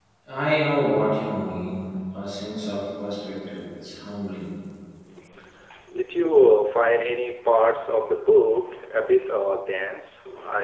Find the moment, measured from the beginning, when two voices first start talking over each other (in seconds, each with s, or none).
none